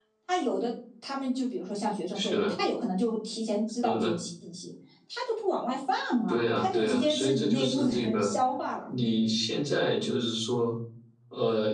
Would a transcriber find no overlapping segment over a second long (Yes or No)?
No